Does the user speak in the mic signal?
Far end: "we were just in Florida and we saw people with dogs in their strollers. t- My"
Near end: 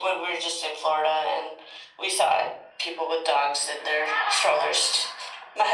No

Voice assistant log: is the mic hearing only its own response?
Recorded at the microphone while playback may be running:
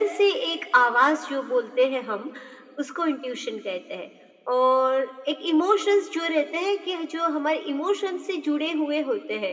Yes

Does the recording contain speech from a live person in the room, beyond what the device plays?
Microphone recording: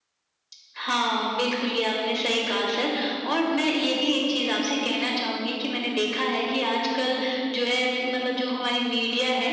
No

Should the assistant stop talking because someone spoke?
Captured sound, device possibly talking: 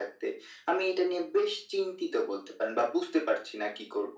No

